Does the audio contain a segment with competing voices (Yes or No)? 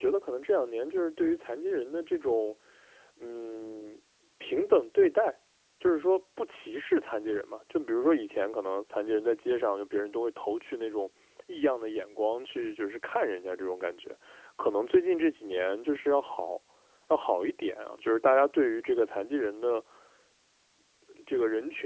No